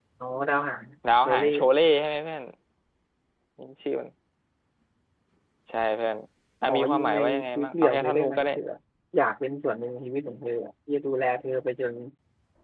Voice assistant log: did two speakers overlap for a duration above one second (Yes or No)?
Yes